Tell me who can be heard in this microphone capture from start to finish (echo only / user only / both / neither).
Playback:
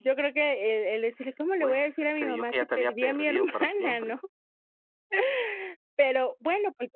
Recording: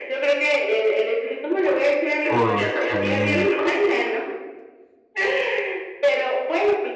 both